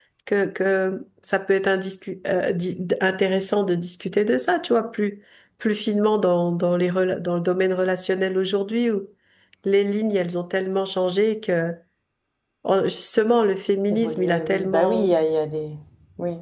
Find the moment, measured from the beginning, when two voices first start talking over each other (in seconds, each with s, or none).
13.9 s